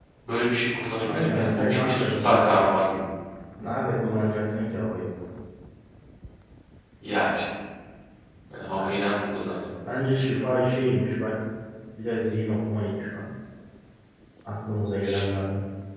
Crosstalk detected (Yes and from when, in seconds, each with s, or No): Yes, from 1.0 s